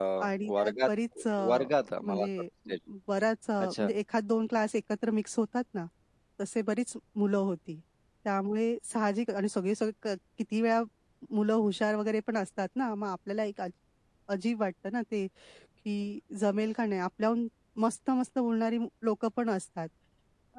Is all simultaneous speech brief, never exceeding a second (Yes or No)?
Yes